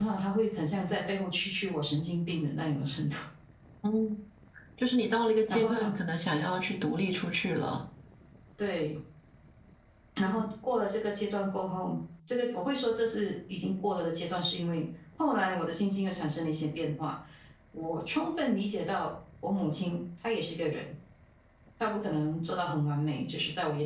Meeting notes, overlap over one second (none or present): none